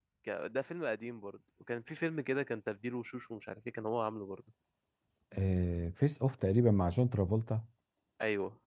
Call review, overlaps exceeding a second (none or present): none